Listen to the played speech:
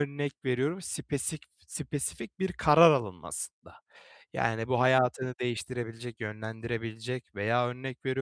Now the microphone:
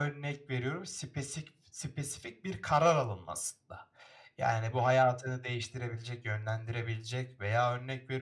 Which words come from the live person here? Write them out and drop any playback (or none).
none